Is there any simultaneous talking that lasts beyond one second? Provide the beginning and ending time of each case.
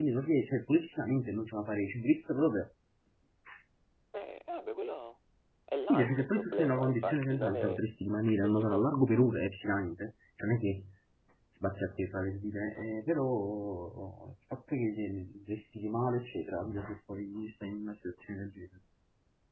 5.8-7.8

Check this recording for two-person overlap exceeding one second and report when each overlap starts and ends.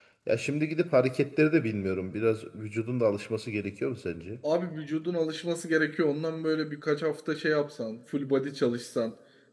none

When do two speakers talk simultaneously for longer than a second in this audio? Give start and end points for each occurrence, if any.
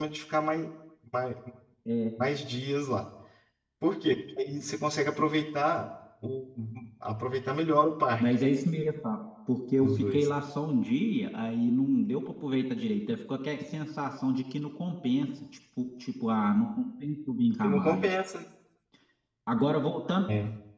none

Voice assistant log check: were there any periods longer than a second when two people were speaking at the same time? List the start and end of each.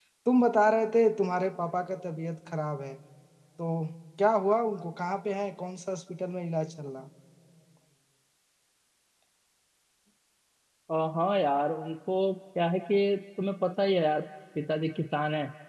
none

